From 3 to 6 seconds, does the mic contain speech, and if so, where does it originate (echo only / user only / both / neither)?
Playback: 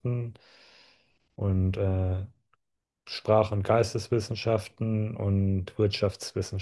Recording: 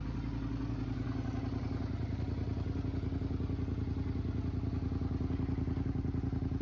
neither